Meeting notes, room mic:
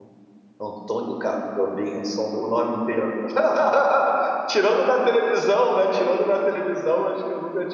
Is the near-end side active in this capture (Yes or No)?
Yes